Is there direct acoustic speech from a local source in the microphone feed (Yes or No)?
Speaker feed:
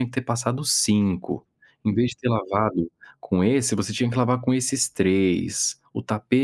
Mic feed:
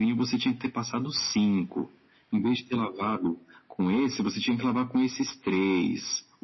No